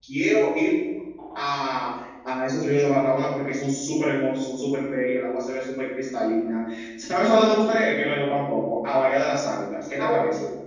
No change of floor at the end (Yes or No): No